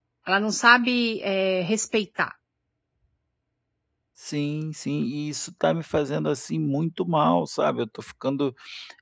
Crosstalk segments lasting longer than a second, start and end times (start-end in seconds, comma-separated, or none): none